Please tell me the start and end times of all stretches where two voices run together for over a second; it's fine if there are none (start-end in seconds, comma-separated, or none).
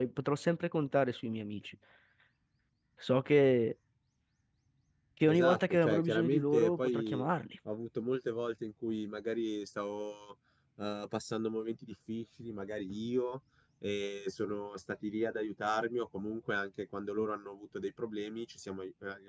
5.3-7.2